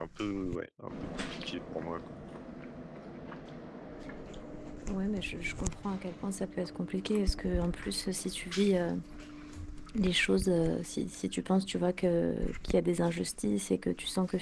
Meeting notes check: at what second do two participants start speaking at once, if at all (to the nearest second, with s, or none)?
none